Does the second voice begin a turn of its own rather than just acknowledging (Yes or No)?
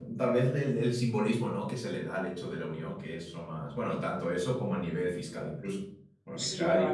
Yes